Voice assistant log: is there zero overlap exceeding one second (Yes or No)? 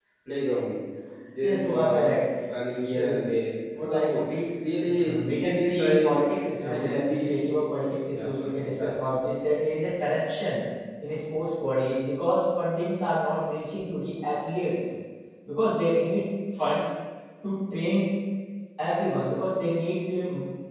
No